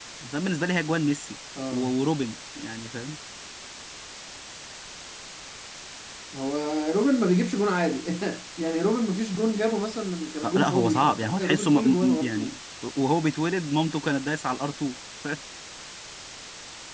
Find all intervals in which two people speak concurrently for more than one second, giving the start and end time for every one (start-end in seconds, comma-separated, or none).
10.4-12.4